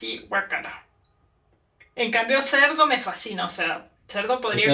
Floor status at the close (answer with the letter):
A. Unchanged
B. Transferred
B